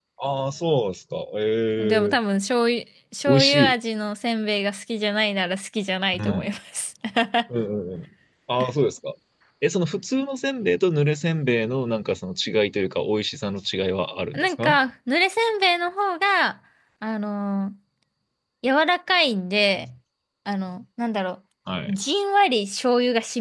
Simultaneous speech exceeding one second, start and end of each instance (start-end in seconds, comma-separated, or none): none